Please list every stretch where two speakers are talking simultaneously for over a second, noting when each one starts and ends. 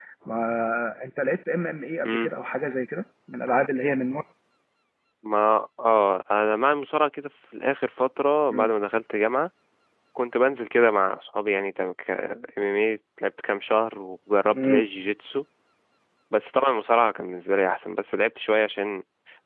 none

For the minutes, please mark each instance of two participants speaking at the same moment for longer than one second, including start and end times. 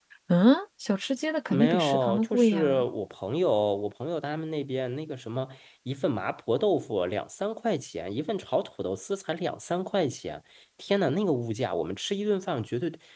1.5-2.8

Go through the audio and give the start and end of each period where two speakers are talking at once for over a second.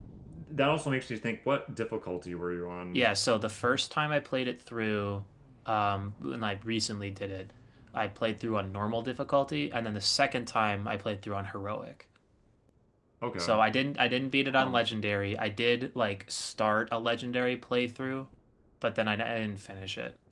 none

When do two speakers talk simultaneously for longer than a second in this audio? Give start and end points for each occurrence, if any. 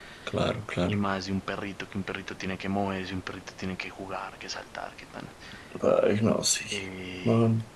none

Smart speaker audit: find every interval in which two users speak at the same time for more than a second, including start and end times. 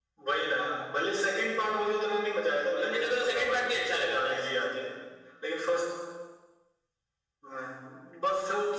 2.8-4.3

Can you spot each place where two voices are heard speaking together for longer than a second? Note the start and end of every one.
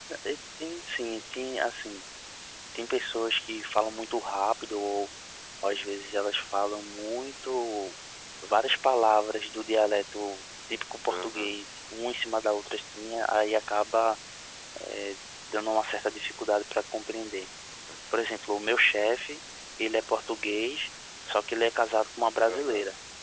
none

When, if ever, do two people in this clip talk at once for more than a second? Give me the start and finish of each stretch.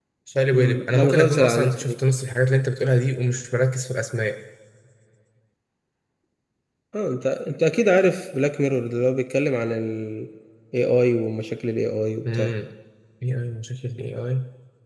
0.5-1.9

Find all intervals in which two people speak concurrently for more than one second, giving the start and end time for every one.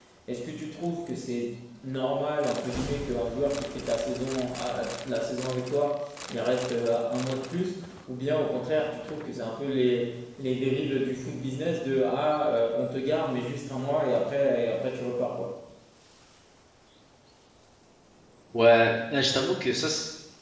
none

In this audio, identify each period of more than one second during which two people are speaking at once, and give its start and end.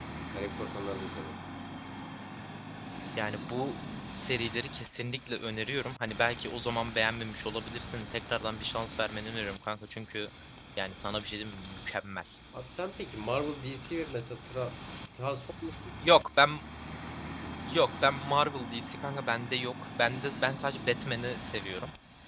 none

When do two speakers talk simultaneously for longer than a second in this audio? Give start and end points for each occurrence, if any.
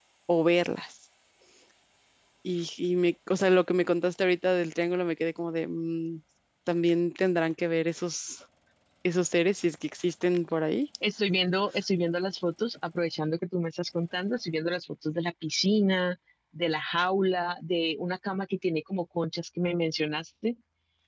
none

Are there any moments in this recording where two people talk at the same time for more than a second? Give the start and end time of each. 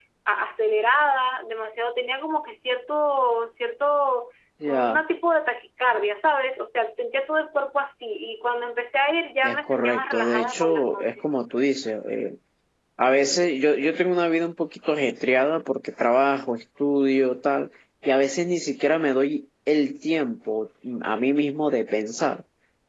9.4-11.3

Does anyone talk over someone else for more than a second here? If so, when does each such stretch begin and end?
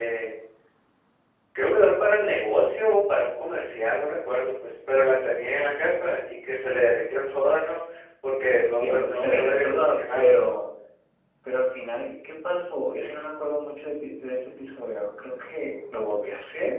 8.7-10.3

